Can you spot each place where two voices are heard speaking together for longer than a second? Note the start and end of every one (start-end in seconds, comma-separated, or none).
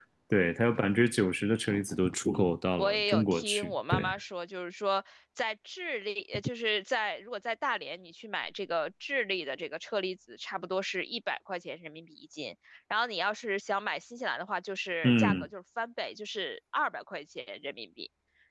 2.8-4.1